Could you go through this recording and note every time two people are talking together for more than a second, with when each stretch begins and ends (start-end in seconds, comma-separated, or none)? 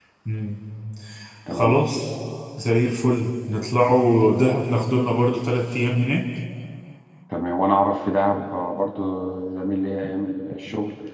none